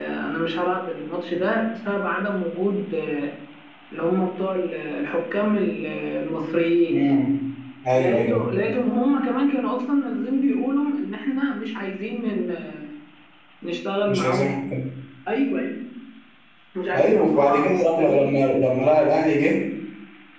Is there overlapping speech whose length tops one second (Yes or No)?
Yes